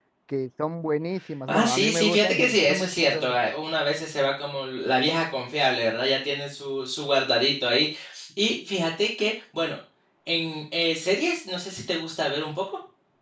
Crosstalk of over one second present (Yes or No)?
Yes